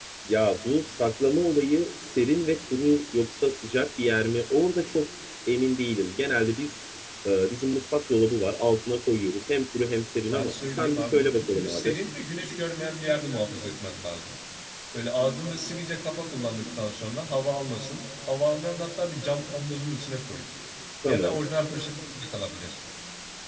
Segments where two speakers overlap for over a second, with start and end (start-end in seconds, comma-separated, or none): 10.3-11.9